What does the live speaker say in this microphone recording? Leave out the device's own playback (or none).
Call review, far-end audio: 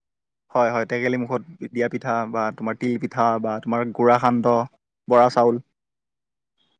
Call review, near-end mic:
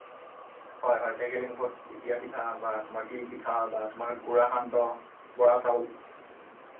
none